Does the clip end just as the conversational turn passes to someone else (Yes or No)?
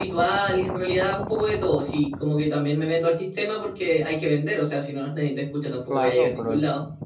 Yes